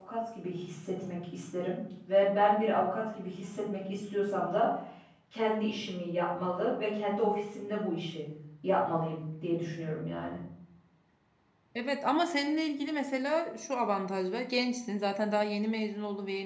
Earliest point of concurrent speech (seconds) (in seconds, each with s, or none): none